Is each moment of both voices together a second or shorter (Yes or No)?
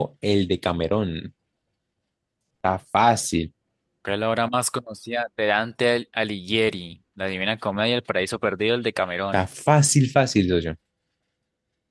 Yes